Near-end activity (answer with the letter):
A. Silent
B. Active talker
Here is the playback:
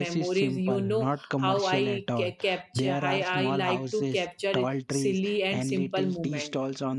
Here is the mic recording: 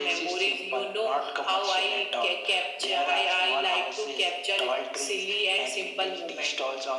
A